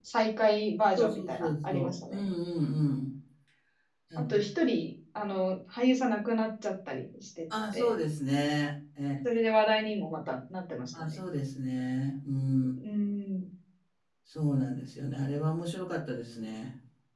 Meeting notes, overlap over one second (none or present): present